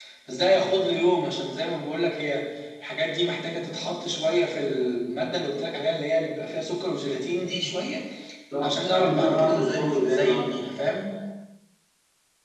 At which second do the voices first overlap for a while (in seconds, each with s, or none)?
8.6 s